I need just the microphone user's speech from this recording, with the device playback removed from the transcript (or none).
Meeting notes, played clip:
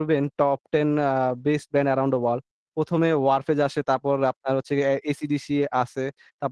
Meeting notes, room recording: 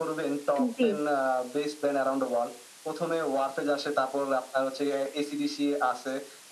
আম জি।